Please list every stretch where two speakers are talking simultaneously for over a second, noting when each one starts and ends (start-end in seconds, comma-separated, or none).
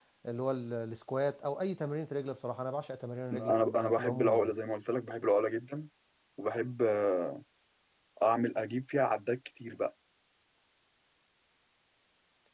3.3-4.6